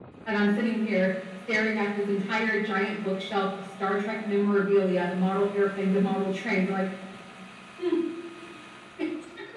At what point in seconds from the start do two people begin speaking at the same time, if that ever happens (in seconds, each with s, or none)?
none